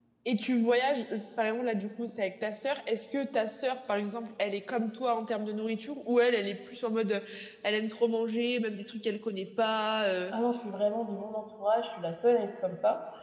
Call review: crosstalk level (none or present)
none